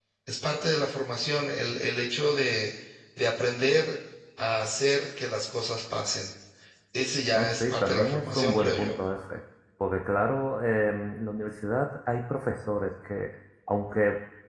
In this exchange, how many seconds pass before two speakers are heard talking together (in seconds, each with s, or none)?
7.3 s